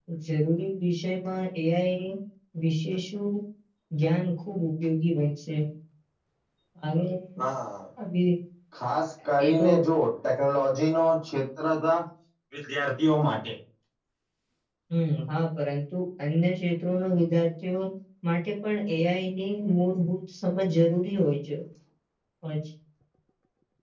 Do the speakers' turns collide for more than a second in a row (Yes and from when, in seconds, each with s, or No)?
No